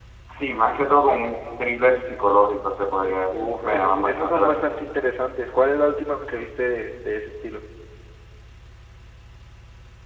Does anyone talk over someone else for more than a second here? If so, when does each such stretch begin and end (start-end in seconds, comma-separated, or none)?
3.3-4.9